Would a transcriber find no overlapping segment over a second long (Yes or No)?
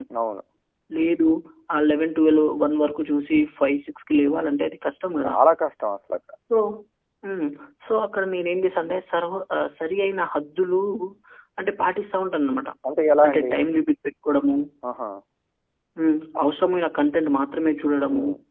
Yes